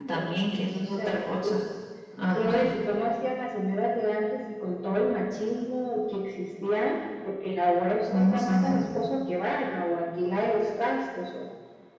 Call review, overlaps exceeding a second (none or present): present